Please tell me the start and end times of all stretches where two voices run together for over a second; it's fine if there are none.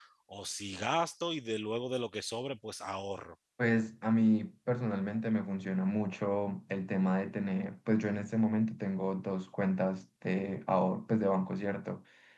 none

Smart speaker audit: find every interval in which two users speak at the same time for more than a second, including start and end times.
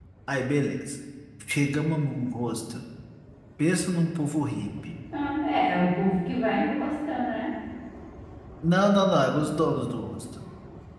none

